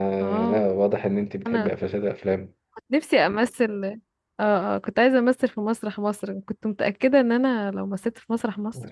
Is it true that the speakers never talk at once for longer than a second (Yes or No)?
Yes